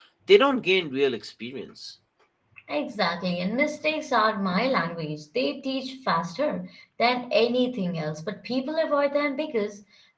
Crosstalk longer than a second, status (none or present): none